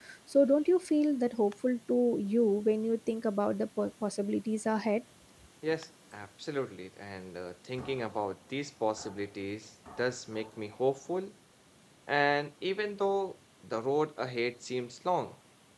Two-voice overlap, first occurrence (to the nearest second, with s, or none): none